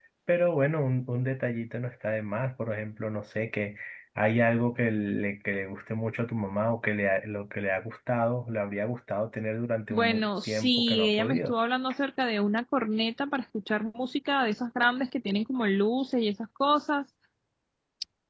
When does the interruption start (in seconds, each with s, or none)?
9.9 s